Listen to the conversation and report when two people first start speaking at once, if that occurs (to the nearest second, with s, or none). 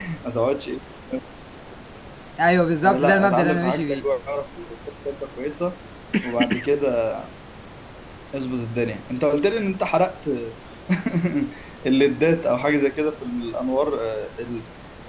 3 s